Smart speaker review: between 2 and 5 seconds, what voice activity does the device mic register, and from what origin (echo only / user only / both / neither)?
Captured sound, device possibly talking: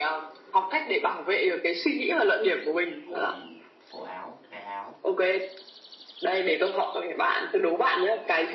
both